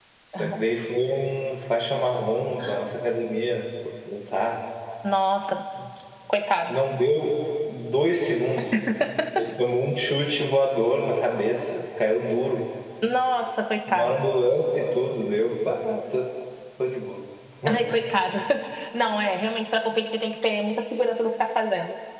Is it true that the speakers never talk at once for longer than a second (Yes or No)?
Yes